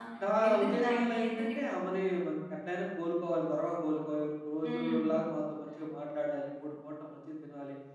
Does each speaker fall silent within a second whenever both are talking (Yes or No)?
No